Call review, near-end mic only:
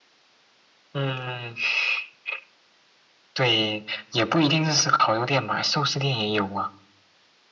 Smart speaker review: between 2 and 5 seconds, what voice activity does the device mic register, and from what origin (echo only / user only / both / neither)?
echo only